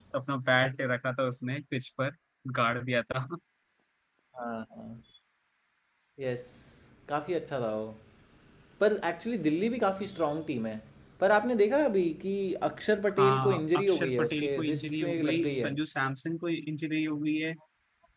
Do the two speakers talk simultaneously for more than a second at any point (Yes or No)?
Yes